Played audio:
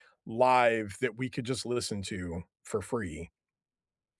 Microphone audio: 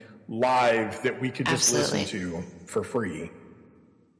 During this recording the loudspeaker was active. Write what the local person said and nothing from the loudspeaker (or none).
Absolutely.